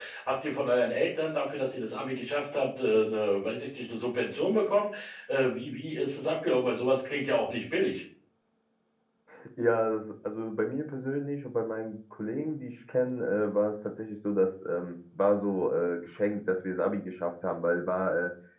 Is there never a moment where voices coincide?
Yes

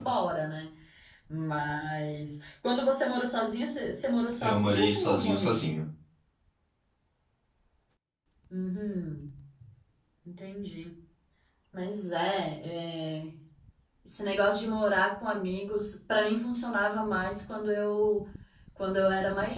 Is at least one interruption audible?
Yes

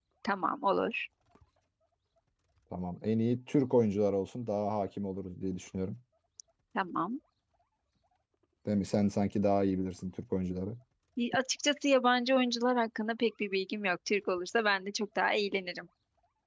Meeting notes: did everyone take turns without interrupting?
Yes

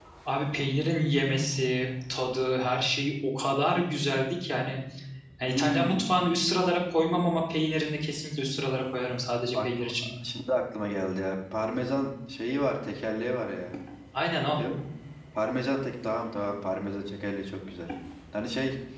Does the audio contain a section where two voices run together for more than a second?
No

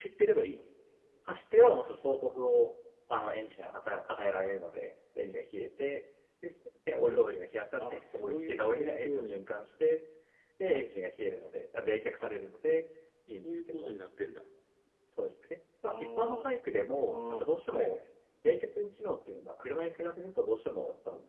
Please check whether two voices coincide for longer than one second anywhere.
Yes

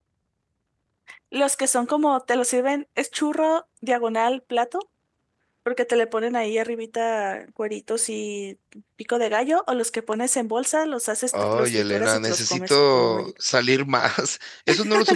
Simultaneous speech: Yes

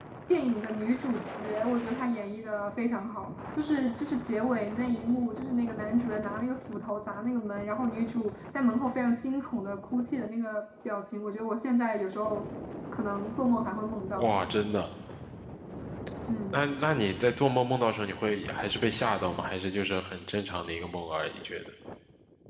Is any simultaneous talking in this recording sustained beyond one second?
No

